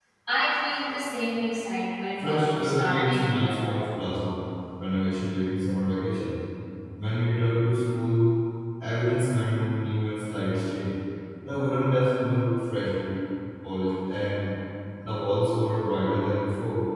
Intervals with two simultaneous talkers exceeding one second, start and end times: 2.2-3.8

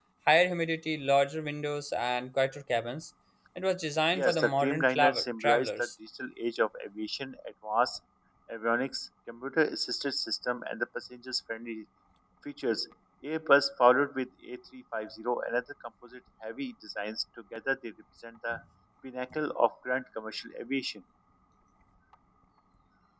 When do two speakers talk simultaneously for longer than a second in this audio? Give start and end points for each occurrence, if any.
4.2-5.7

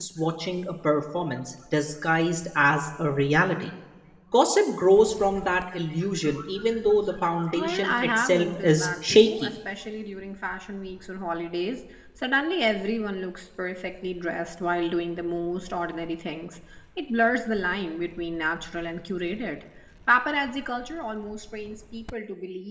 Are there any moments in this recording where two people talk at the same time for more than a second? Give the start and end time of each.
7.6-9.5

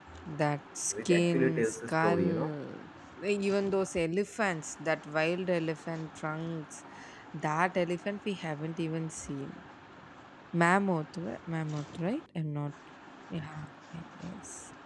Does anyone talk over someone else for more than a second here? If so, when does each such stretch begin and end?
0.9-2.5

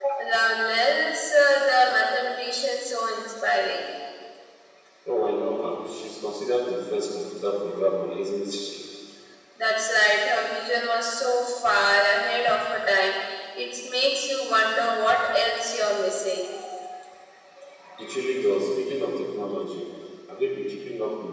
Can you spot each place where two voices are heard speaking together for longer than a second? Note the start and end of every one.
none

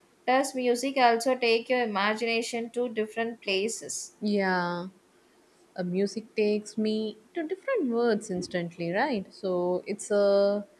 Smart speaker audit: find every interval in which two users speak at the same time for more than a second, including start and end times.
none

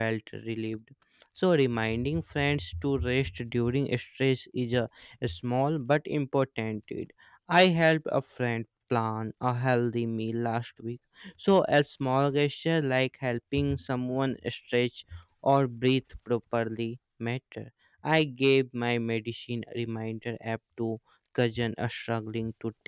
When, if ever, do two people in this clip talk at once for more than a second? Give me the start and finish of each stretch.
none

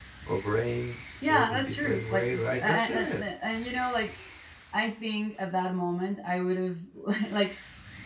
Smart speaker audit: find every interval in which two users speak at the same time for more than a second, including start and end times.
1.2-3.2

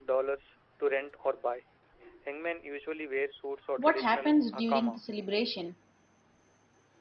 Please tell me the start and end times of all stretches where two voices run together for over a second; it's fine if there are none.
3.8-5.0

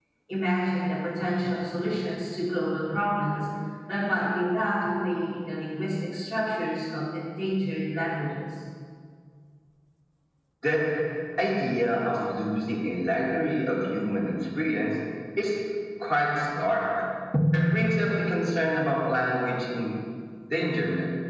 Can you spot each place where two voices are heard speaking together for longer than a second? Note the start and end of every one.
none

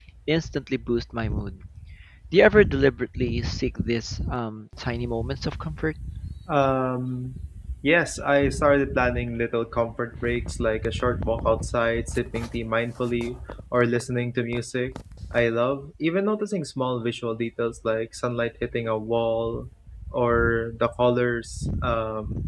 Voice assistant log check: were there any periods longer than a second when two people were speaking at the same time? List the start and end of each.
none

